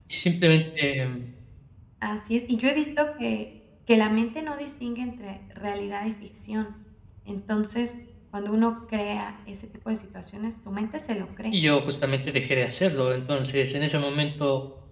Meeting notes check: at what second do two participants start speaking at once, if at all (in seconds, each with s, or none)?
none